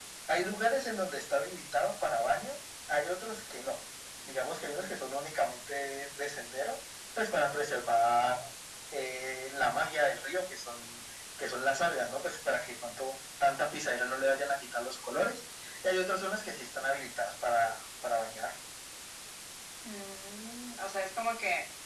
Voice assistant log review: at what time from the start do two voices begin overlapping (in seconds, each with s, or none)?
none